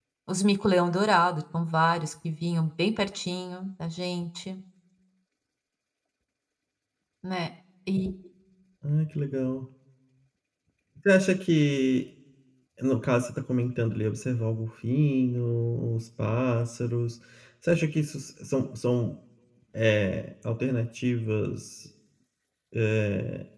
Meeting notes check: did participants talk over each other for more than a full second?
No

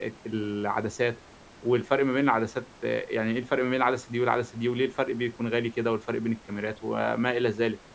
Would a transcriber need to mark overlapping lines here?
No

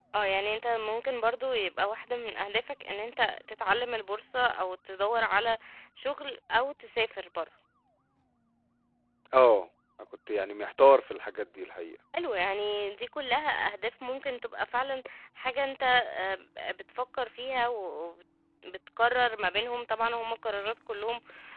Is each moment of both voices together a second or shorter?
Yes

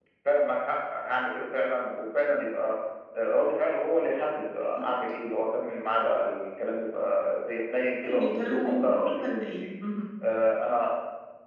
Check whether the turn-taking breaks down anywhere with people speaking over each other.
Yes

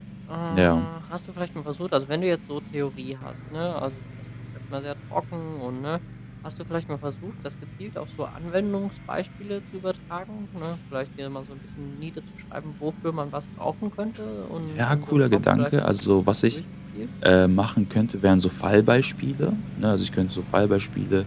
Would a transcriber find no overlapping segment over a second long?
No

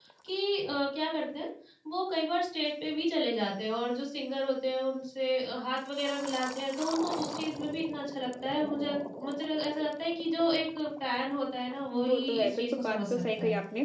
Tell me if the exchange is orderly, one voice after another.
No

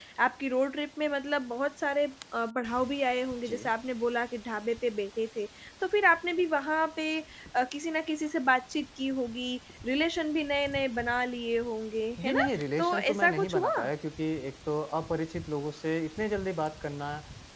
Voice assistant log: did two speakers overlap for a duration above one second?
Yes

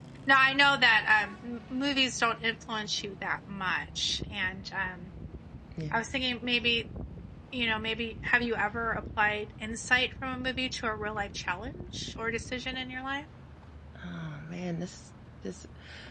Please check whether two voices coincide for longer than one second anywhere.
No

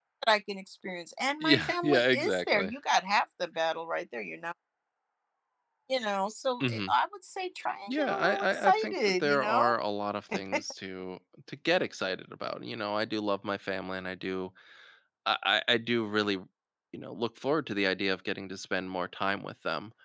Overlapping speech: Yes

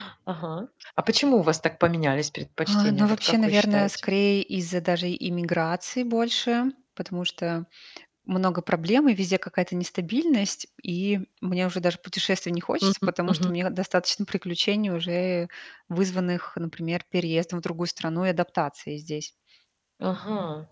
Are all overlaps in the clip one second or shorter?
No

